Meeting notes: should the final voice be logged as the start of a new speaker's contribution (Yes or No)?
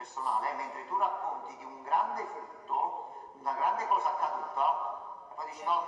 No